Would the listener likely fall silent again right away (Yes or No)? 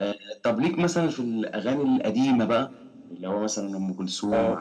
No